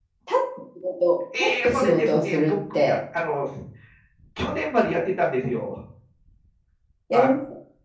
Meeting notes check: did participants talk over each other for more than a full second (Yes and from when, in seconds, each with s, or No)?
Yes, from 1.3 s